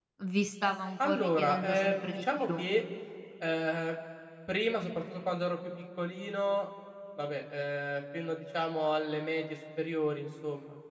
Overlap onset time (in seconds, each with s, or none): 1.0 s